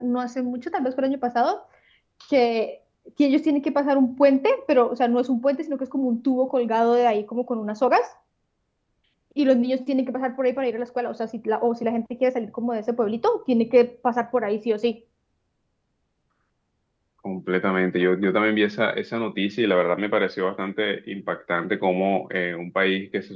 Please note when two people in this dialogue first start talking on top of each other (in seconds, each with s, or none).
none